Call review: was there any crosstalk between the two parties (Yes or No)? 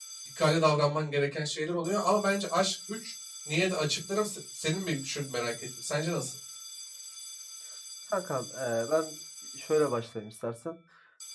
No